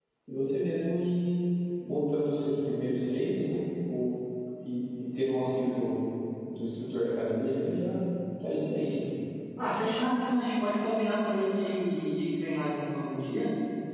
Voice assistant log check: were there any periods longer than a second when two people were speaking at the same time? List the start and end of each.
none

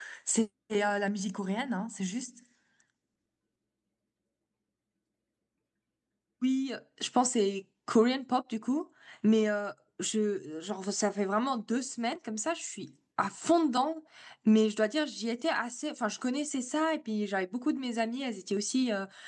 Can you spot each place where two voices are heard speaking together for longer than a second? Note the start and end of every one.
none

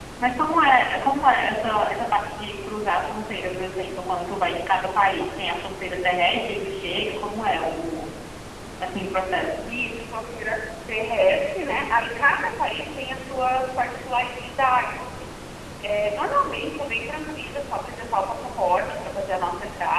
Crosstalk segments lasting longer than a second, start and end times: none

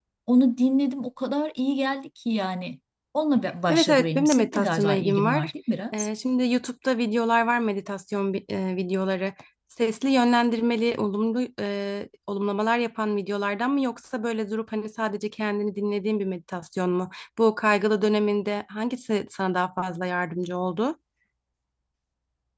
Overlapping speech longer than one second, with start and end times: 3.7-5.5

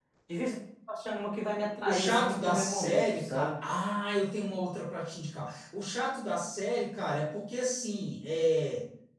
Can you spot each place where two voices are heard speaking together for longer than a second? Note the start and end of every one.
1.9-3.5

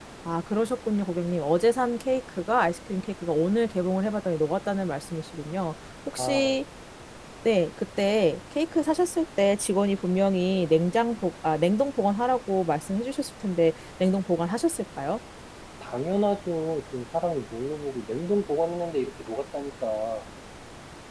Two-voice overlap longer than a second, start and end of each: none

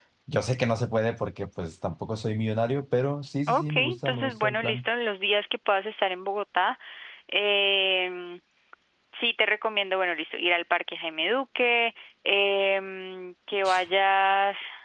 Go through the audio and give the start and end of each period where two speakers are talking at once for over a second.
3.5-4.8

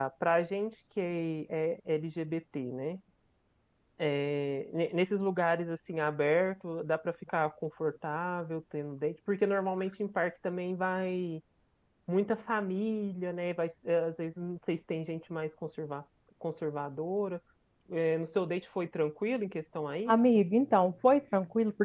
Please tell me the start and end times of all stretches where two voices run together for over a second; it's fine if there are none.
none

